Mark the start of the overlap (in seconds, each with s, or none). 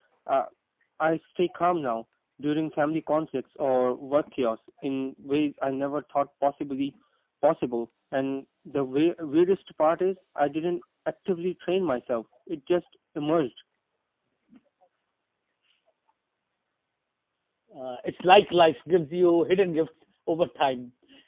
none